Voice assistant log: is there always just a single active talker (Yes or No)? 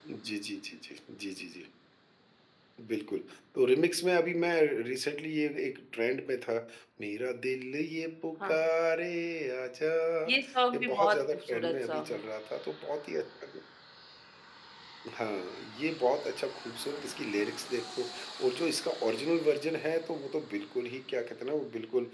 No